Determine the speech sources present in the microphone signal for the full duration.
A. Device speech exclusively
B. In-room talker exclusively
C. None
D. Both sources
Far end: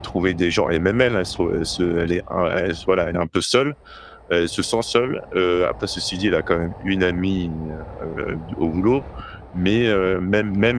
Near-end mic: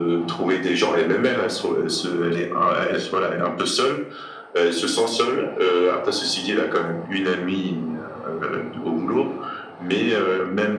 A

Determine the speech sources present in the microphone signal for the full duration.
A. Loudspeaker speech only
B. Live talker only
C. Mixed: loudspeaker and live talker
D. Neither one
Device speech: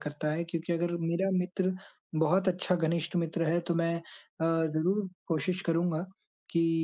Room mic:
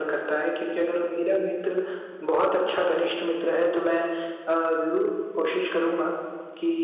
A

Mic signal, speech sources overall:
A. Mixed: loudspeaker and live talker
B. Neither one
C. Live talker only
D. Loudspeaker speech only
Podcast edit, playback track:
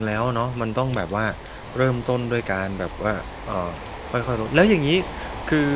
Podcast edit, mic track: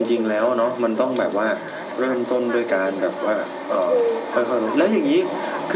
A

